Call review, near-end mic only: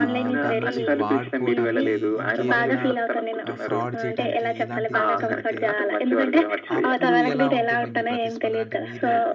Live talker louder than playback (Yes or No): No